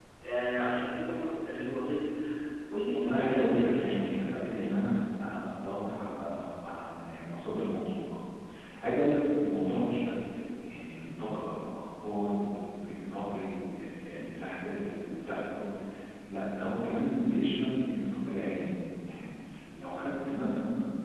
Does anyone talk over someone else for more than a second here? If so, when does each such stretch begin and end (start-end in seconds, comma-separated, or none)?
2.9-4.9